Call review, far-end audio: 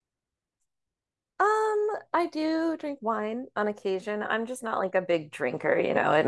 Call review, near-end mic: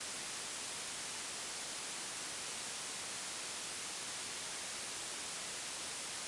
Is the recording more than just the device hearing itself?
No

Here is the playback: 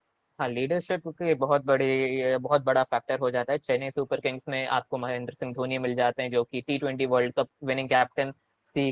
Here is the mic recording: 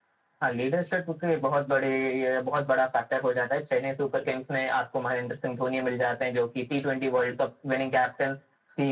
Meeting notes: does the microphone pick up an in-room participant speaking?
No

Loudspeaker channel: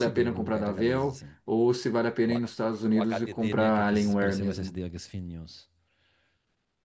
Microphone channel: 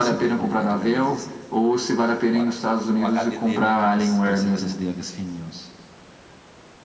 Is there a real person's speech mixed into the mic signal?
No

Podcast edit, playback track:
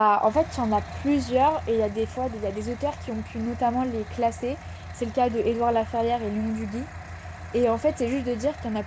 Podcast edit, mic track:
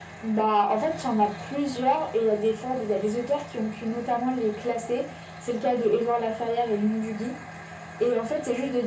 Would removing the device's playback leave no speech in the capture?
Yes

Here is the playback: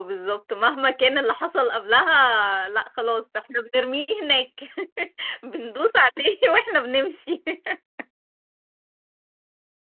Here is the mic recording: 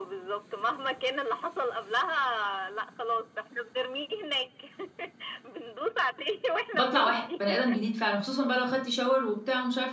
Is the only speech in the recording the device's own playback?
No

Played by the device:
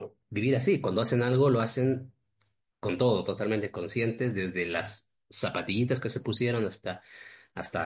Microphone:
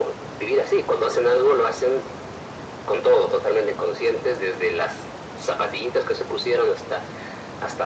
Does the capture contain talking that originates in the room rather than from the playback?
No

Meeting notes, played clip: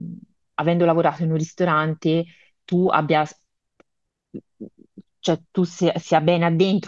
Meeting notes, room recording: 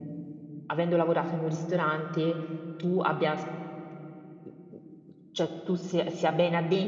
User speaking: No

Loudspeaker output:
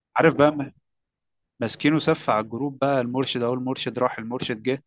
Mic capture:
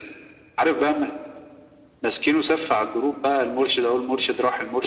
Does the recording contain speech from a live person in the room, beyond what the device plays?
No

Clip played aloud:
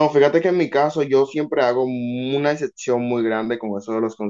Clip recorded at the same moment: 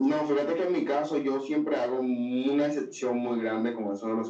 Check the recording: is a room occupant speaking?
No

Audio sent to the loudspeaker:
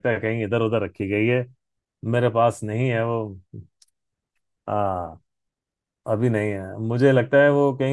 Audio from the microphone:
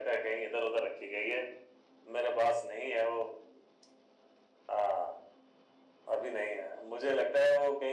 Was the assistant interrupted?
No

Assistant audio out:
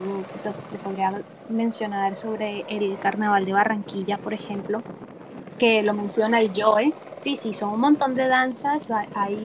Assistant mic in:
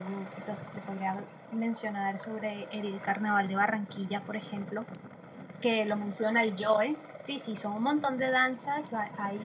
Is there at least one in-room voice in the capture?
No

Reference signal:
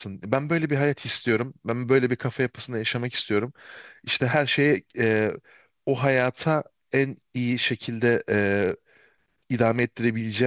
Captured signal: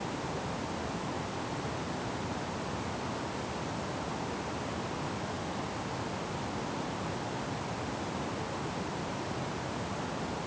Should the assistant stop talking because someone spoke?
No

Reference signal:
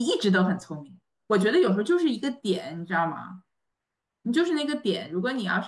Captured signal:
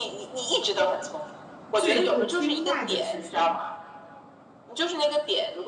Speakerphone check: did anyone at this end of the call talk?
Yes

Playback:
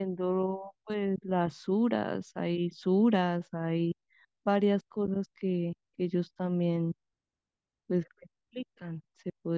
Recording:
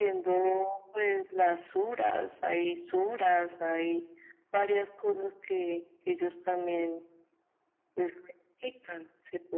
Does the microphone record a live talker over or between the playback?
No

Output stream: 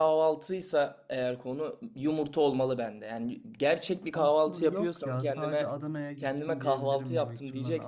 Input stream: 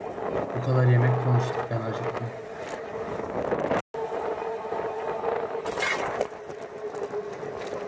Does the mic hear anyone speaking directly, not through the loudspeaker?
Yes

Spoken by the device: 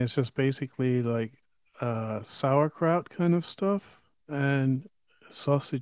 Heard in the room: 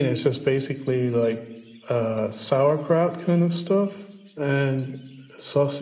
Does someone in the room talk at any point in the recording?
No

